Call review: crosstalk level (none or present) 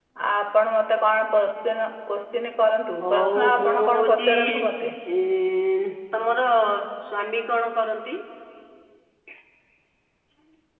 present